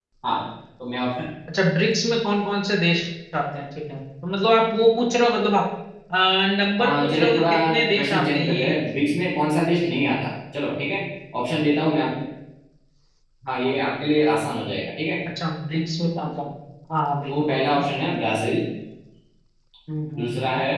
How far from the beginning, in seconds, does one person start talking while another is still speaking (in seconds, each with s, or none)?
6.8 s